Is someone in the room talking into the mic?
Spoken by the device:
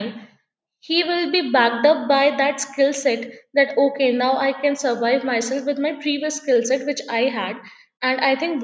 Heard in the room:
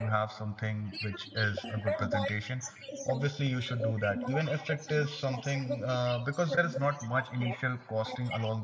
Yes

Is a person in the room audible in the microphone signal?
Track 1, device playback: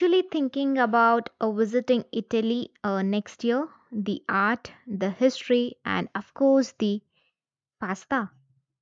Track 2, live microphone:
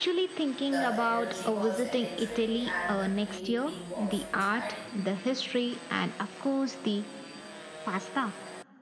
Yes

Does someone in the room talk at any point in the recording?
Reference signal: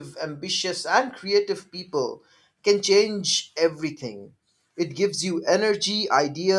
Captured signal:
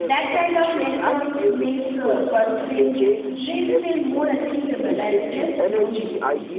Yes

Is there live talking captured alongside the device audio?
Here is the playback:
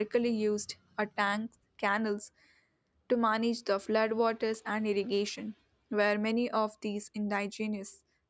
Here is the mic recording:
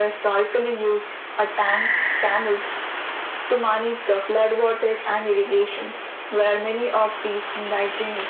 No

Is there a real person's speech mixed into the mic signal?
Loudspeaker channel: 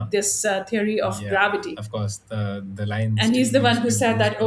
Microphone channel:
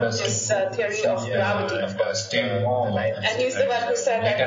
Yes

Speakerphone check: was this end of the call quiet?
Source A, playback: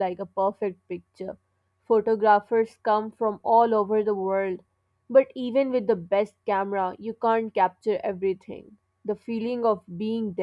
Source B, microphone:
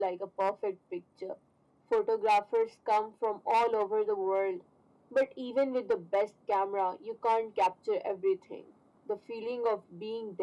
Yes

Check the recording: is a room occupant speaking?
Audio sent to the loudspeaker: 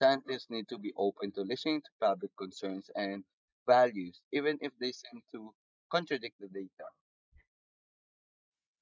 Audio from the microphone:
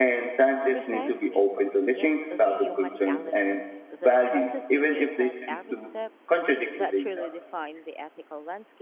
Yes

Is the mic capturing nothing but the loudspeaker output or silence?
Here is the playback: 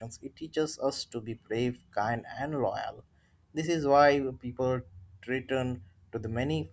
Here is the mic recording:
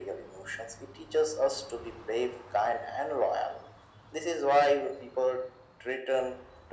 Yes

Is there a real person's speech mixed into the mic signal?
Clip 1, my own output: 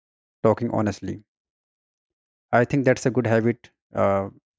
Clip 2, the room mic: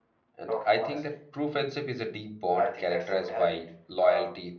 Yes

